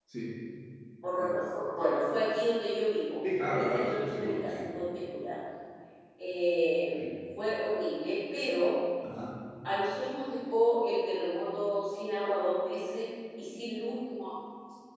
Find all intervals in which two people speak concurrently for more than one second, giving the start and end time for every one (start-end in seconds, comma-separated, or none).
3.4-4.6